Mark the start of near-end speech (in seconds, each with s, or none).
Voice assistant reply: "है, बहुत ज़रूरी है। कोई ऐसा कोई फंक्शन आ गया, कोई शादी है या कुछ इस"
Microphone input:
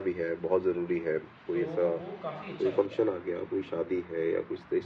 1.5 s